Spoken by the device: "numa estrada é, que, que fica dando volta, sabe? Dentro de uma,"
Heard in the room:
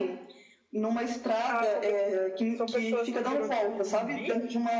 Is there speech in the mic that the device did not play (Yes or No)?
Yes